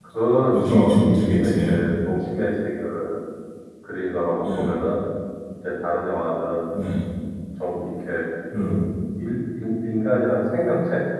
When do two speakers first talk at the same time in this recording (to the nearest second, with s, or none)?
1 s